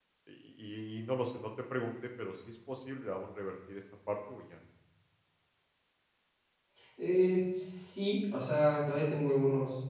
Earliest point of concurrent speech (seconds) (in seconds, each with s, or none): none